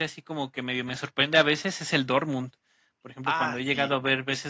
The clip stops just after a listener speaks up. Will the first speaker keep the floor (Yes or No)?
Yes